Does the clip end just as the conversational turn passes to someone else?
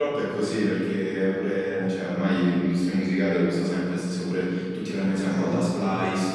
No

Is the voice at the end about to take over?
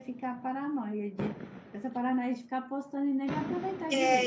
Yes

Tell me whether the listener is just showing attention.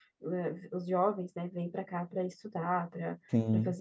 Yes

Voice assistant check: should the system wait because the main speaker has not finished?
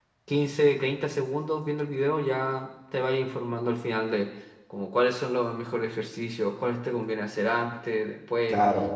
Yes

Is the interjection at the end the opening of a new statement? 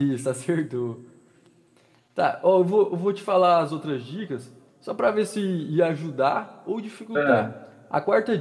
No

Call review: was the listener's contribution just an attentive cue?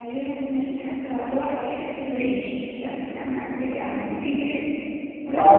Yes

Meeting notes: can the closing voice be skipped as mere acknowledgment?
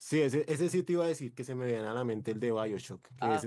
No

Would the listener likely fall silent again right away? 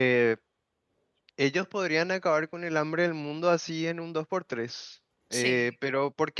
Yes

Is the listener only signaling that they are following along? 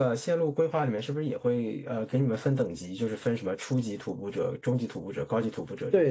No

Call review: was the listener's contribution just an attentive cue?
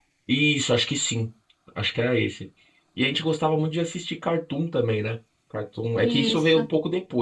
Yes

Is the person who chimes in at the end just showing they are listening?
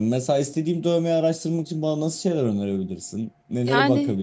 No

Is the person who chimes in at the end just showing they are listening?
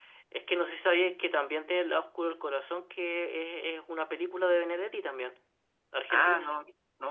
No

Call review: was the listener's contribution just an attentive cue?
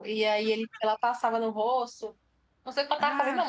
Yes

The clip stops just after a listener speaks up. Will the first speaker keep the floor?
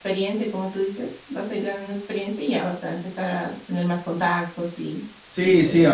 No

